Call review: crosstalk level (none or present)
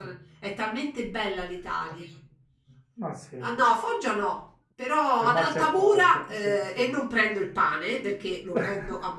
present